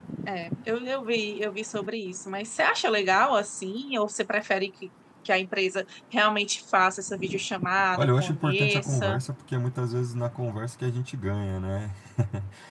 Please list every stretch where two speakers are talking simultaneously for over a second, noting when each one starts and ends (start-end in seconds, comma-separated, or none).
7.9-9.2